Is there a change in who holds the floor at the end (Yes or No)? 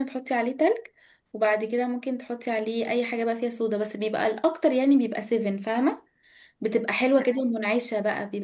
No